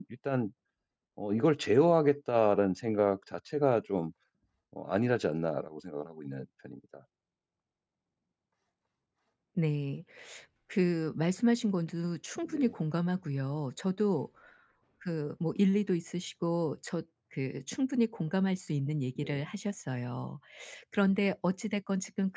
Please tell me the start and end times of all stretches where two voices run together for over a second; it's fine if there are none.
none

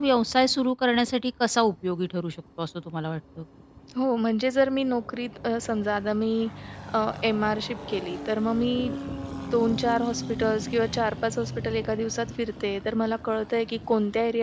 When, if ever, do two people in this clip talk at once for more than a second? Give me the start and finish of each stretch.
none

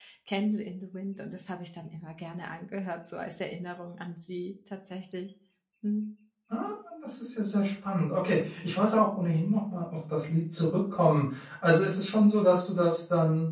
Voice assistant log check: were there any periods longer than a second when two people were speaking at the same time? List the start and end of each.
none

